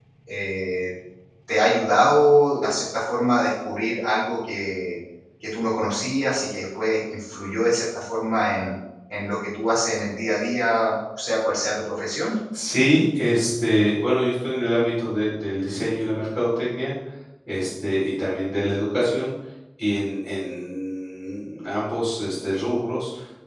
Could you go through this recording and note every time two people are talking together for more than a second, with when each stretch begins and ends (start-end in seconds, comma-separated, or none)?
none